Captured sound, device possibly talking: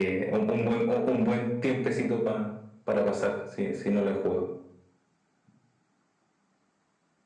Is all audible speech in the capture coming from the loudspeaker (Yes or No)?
Yes